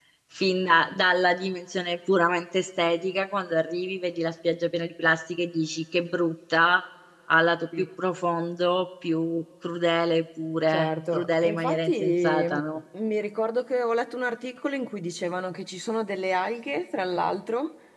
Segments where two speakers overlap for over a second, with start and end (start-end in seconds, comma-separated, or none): 10.7-12.6